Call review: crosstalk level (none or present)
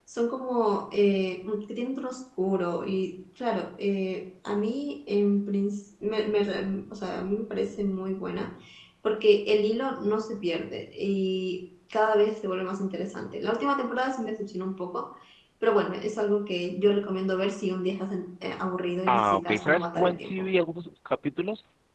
present